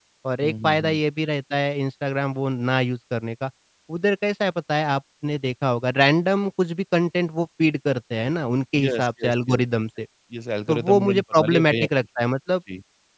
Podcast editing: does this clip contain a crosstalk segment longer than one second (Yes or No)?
Yes